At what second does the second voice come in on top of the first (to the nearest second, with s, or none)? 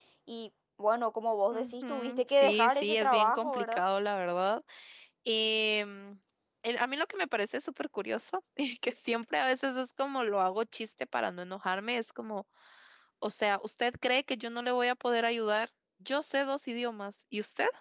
2 s